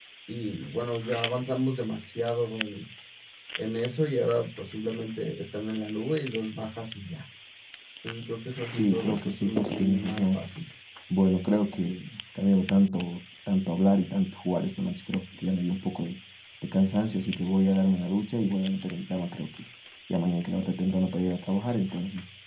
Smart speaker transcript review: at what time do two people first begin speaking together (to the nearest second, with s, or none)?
9 s